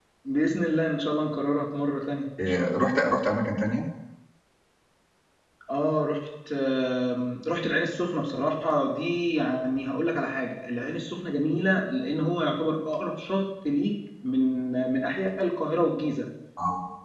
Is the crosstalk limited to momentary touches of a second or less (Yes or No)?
Yes